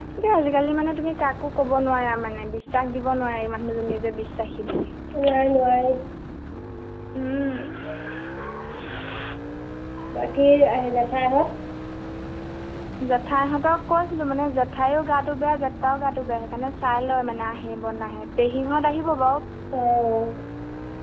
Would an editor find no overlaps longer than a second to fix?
Yes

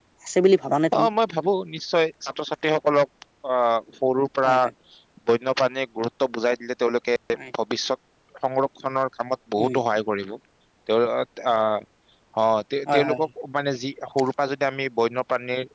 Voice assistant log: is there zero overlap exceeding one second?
Yes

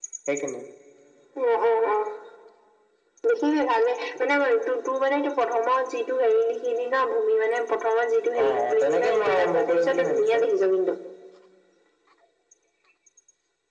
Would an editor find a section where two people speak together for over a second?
Yes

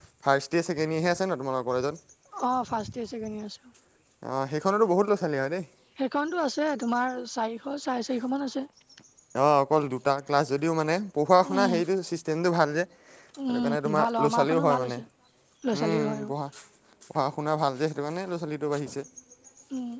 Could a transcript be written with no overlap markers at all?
No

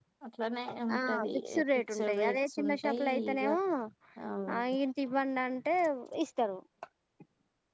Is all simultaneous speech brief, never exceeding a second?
No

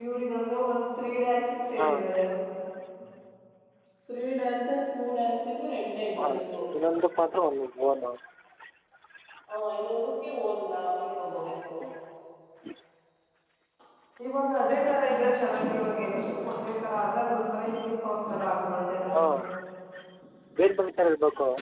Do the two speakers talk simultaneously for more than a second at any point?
No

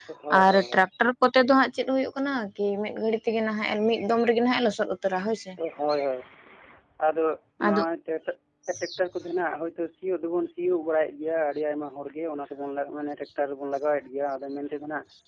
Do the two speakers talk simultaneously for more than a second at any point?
No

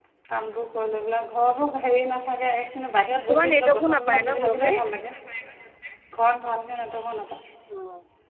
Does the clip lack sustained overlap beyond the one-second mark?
No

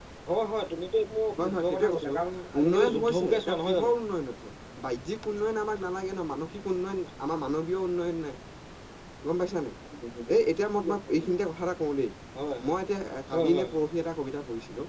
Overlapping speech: Yes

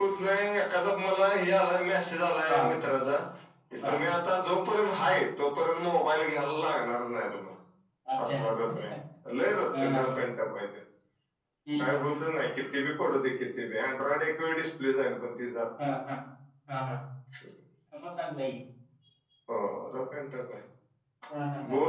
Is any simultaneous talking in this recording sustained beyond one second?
No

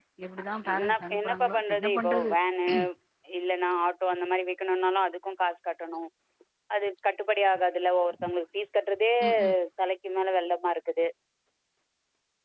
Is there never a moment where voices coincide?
No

